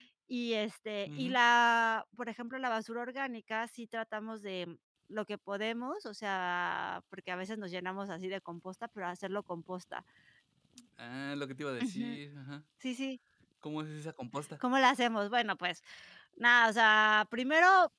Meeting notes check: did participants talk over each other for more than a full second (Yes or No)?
No